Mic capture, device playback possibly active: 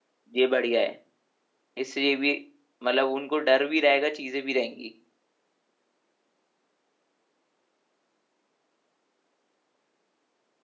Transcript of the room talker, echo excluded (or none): ये बढ़िया है इसलिए भी मतलब उनको डर भी रहेगा चीजें भी रहेंगी